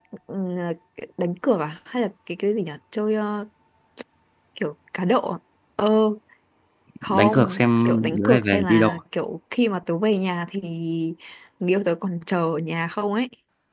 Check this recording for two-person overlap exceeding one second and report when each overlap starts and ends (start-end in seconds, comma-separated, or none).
7.1-9.0